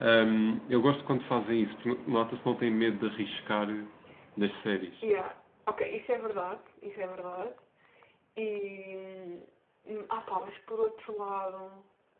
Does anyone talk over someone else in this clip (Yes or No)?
No